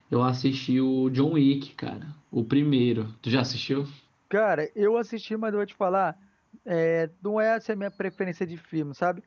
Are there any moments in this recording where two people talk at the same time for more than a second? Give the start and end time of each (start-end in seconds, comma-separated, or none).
none